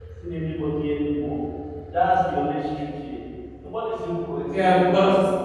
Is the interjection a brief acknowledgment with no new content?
No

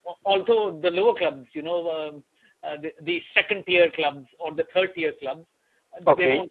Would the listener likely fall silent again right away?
Yes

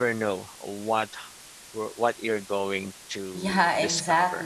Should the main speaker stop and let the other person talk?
Yes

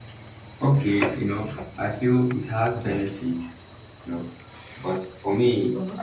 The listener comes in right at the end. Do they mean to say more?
No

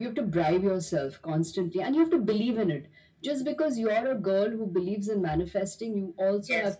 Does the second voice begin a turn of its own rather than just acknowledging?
No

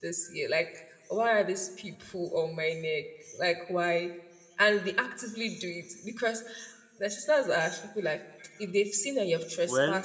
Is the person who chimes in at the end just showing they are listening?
Yes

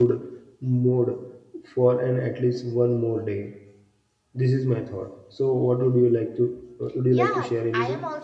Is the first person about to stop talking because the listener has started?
Yes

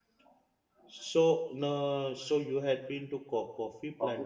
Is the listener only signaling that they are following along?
No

